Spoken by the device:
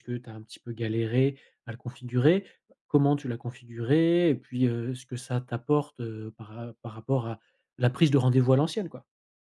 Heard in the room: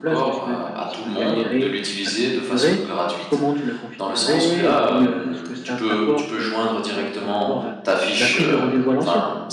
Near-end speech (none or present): present